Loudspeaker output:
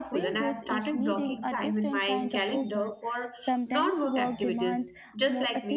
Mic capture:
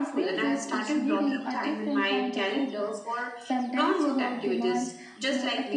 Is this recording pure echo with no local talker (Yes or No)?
Yes